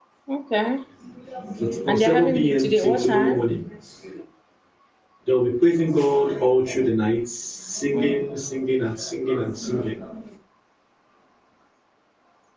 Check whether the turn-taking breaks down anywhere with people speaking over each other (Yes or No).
Yes